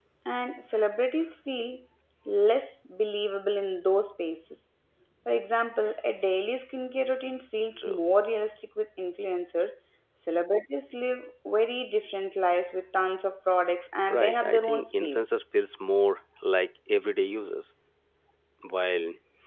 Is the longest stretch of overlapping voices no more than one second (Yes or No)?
No